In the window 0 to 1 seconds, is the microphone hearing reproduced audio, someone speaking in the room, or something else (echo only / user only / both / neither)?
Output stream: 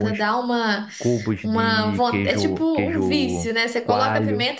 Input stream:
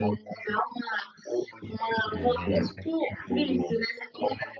echo only